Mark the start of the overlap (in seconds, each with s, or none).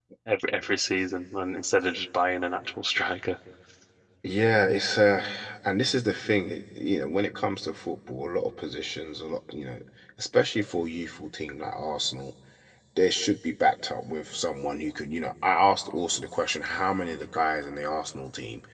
none